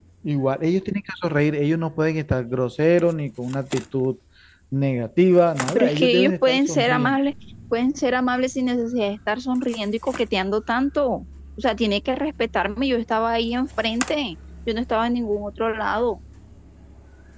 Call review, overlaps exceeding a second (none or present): present